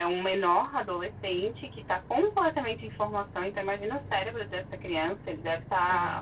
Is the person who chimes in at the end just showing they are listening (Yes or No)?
Yes